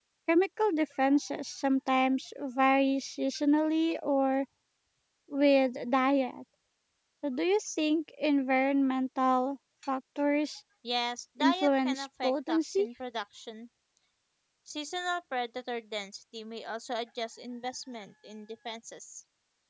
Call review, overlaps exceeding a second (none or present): present